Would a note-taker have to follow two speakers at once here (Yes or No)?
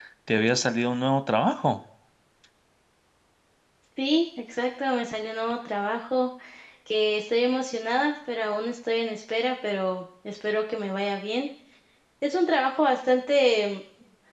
No